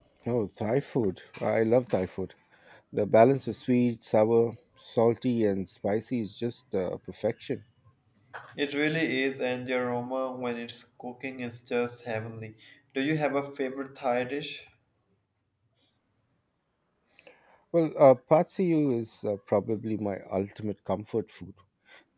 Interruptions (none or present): none